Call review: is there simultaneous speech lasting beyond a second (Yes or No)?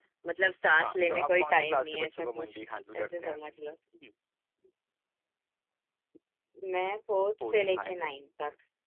Yes